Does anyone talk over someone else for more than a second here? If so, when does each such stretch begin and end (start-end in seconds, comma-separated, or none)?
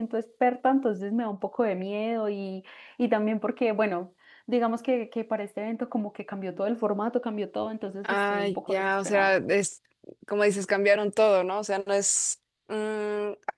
8.0-9.3